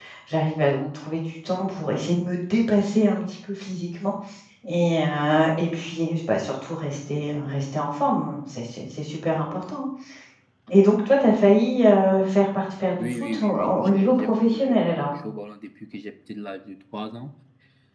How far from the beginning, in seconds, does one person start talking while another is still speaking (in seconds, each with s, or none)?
13.0 s